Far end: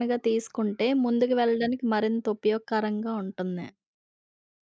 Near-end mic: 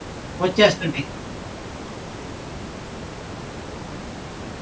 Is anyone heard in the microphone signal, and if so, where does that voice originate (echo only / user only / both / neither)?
user only